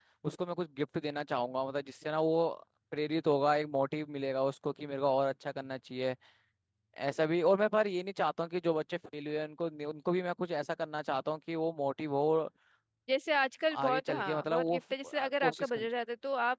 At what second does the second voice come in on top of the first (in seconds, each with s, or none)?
13.8 s